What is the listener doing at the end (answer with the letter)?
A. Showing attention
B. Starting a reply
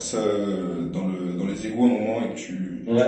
B